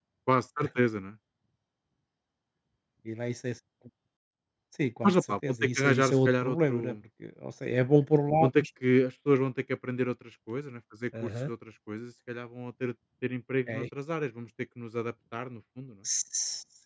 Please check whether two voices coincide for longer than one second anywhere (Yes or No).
Yes